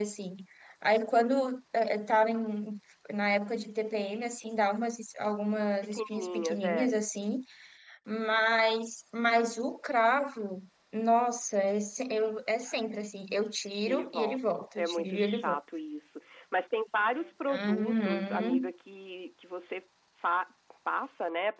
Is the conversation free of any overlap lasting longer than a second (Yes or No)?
No